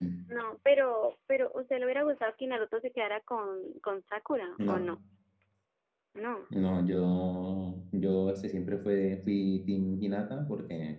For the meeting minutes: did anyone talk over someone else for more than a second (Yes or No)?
No